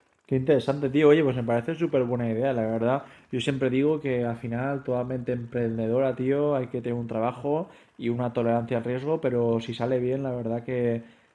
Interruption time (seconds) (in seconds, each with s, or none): none